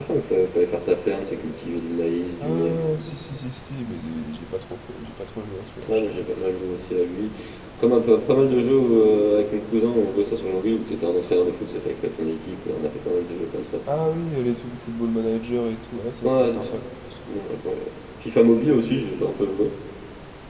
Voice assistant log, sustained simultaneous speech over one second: none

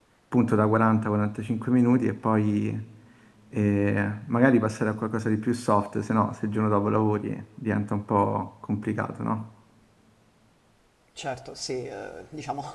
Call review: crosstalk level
none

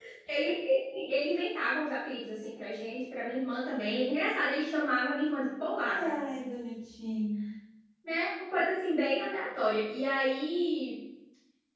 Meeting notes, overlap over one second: none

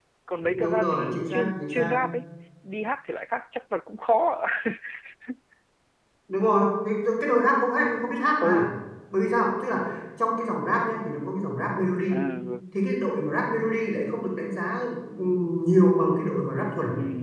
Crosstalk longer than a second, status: present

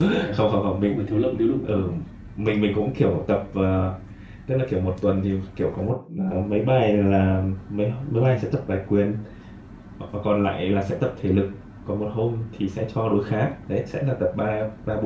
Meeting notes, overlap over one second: none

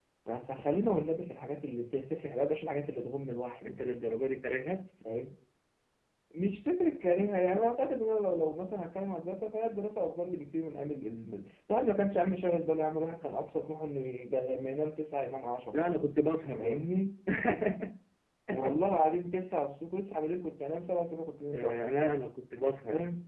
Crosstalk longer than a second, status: none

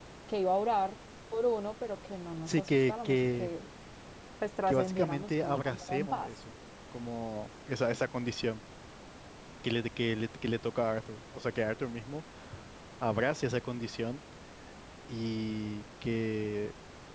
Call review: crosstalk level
present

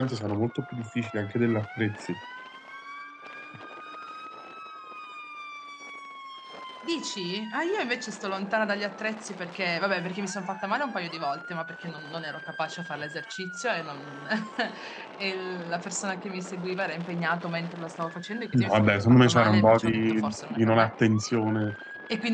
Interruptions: present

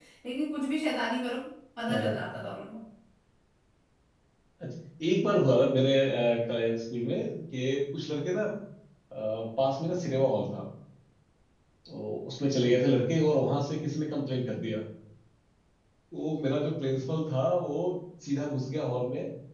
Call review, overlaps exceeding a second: none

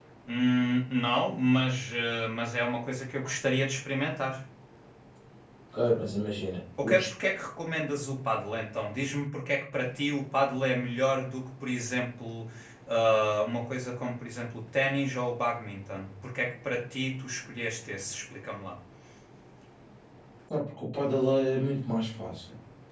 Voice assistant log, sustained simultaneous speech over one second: none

